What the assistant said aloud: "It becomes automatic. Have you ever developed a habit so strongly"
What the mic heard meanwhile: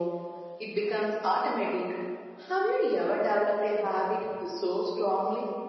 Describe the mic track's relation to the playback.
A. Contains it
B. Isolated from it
A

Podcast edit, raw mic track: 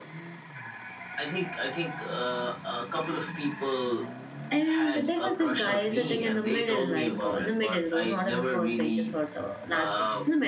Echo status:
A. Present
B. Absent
A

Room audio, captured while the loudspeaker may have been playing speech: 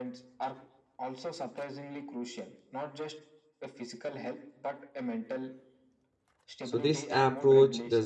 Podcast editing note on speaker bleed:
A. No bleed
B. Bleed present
B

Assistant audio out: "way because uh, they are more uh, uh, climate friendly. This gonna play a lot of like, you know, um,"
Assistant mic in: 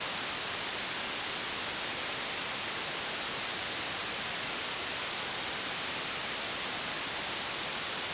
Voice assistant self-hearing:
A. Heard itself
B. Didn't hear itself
B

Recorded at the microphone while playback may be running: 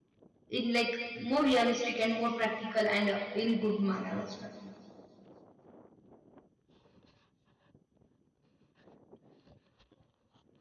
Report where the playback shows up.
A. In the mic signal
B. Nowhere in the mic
B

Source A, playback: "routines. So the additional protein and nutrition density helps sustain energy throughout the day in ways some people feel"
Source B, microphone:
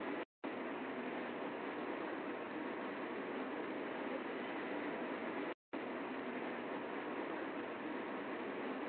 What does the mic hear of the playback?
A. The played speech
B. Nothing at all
B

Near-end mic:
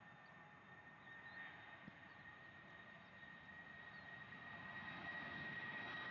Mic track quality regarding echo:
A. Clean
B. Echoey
A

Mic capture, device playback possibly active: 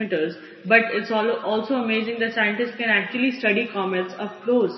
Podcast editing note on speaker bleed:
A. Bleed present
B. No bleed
B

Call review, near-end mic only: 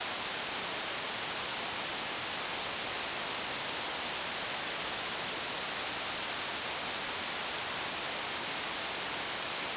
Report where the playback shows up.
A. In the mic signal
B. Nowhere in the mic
B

